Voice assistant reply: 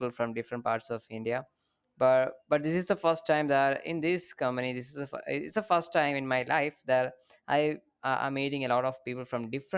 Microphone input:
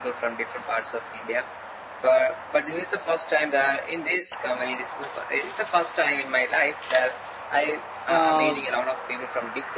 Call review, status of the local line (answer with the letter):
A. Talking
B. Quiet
A